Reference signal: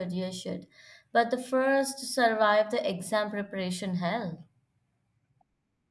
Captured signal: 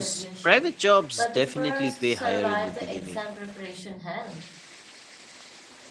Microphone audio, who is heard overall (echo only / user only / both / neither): both